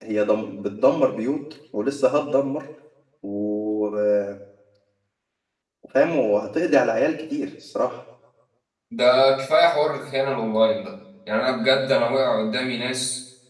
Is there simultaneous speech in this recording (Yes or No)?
No